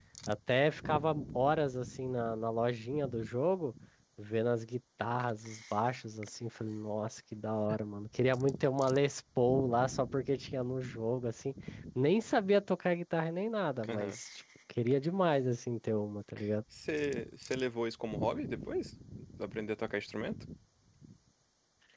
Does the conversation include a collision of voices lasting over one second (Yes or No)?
No